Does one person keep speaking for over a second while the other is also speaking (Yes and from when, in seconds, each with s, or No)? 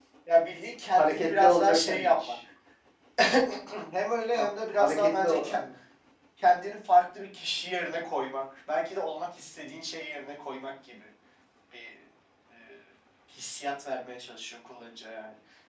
Yes, from 0.9 s